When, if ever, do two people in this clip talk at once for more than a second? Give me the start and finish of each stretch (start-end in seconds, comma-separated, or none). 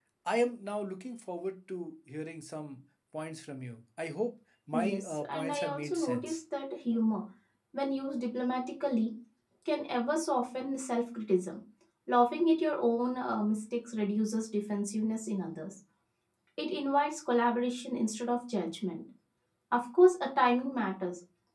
4.7-6.4